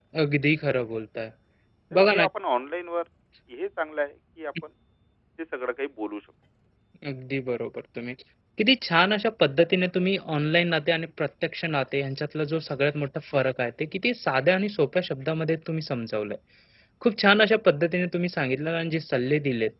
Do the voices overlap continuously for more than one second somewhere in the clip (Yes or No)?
No